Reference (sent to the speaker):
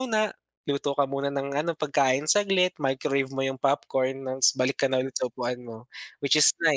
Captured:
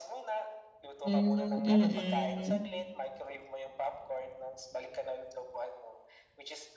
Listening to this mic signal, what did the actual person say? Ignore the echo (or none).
Hmm, mm.